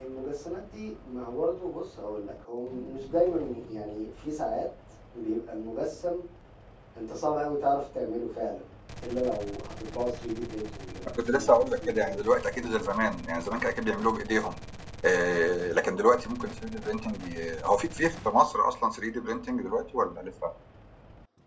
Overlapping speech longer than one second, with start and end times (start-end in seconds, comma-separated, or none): 11.1-12.7